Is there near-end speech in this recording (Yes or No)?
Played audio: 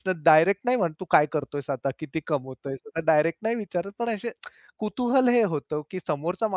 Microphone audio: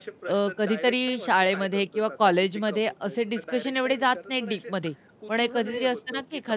Yes